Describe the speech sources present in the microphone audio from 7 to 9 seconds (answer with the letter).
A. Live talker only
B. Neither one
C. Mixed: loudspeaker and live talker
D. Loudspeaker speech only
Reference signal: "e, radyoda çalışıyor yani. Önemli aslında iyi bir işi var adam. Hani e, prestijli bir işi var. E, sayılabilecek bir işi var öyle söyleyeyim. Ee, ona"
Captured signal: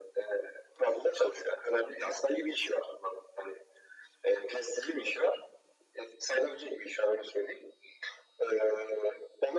D